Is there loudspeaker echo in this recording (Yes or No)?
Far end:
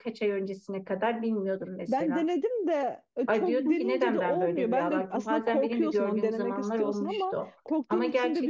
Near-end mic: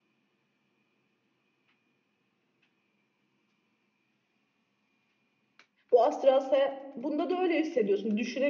No